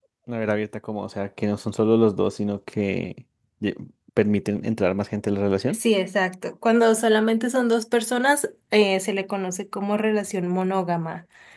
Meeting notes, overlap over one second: none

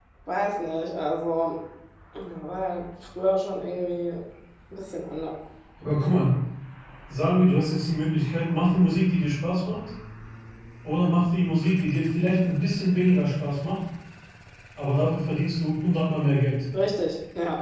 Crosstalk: none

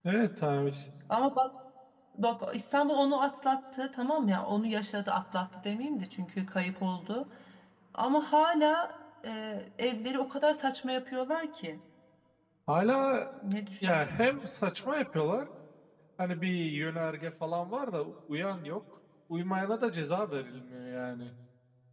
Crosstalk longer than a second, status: none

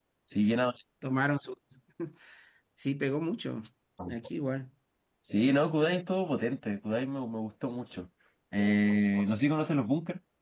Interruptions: none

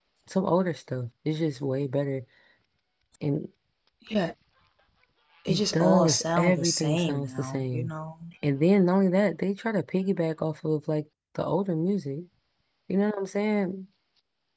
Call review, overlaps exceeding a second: present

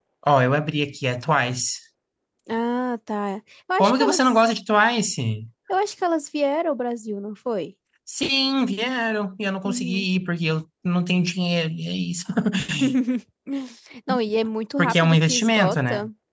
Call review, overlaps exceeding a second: present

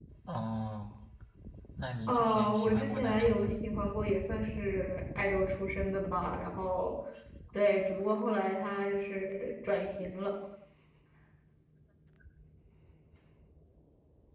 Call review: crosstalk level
present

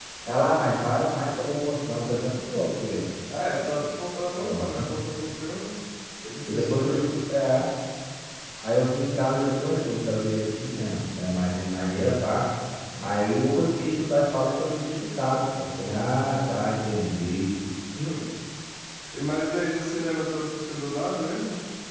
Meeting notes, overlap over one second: none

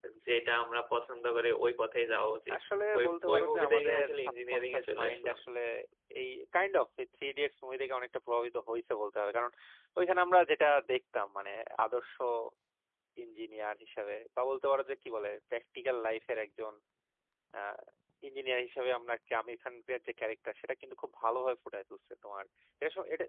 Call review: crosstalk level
present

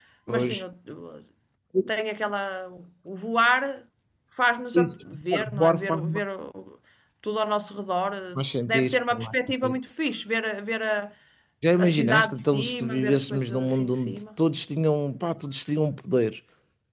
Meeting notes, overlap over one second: present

